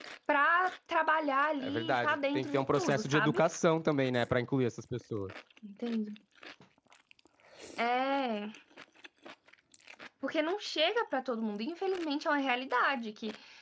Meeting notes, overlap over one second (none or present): present